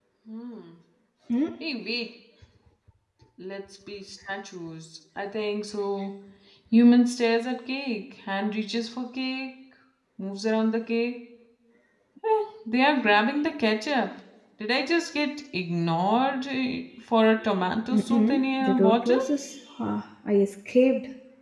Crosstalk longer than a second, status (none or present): present